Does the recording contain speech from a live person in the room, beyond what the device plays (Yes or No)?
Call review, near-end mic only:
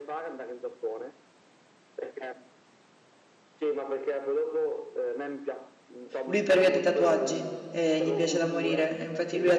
Yes